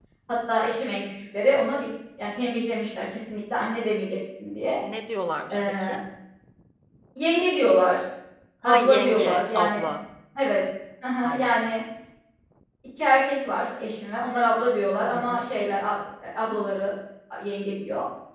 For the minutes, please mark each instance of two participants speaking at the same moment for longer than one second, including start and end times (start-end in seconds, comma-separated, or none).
8.6-9.9